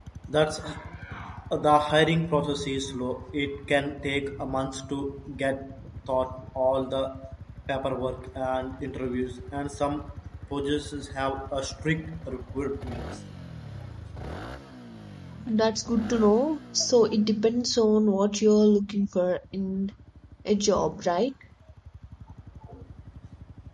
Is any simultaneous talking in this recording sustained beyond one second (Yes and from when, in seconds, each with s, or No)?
No